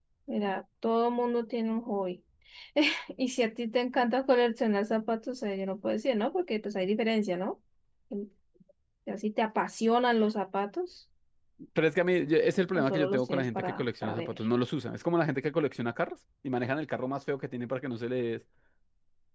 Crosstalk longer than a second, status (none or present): present